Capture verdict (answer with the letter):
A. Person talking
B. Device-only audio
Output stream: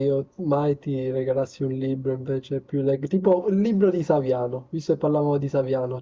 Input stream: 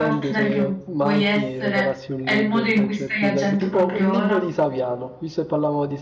A